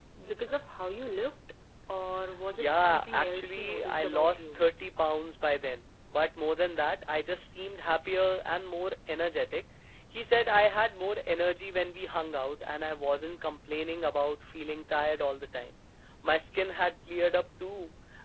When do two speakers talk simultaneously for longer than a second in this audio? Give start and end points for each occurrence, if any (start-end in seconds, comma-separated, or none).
2.5-4.6